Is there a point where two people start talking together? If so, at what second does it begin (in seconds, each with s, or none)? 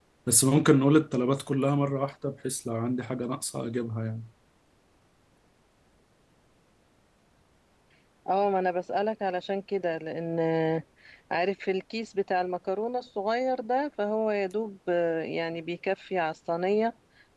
none